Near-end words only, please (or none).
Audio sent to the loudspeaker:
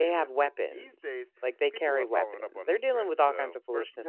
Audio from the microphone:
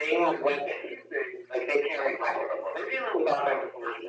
none